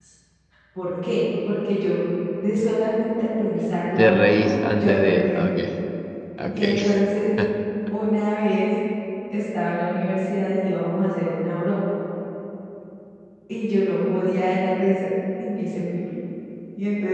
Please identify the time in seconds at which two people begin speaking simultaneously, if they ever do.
4.0 s

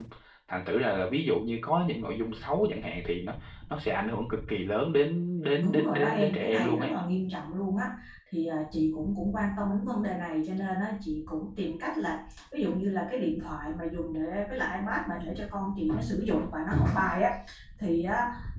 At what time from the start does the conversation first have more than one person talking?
5.6 s

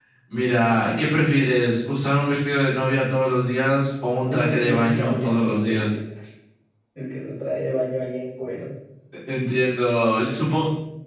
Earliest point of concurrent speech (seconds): 4.3 s

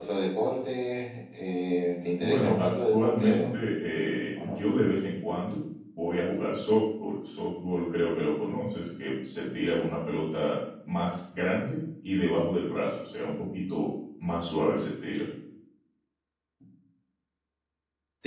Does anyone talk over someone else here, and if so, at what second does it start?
2.2 s

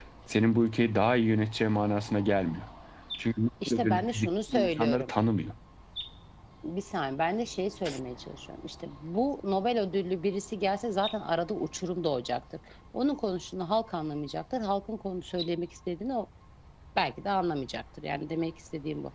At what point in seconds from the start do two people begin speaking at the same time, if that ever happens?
3.7 s

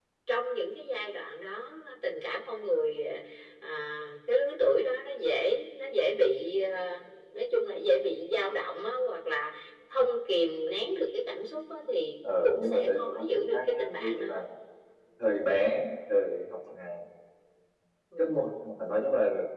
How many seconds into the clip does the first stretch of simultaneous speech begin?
12.2 s

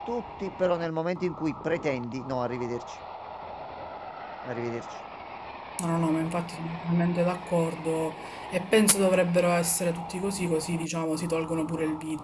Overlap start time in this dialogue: none

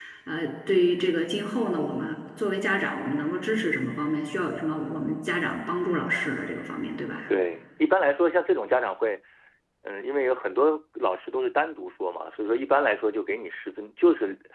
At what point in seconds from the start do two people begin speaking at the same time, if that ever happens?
none

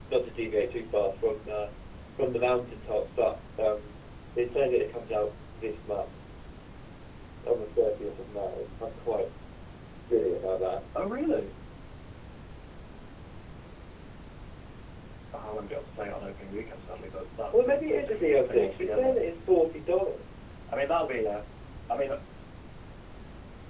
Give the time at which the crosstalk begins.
17.5 s

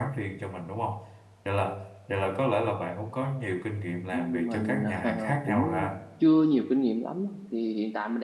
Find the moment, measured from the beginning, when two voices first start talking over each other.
4.1 s

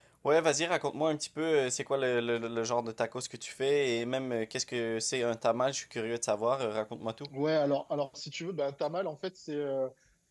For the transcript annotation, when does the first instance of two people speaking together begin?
none

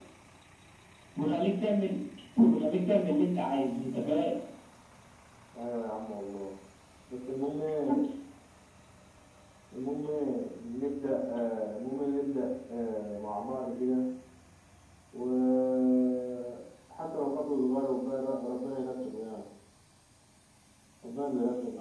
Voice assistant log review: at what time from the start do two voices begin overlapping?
none

